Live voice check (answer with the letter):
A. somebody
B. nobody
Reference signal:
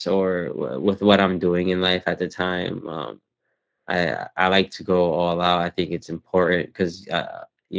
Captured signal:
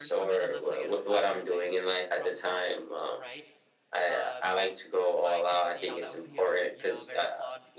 A